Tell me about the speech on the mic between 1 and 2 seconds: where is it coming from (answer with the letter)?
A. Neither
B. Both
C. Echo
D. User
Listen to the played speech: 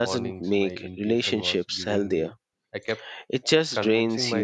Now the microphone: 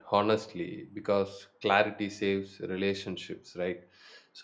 D